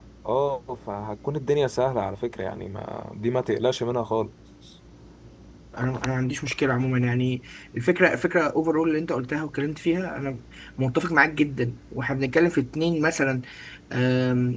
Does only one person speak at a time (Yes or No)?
Yes